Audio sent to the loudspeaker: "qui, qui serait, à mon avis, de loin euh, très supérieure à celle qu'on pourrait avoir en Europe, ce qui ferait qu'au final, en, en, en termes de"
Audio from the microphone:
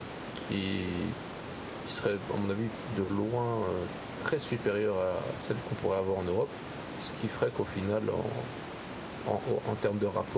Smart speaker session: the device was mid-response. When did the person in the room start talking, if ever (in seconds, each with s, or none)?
none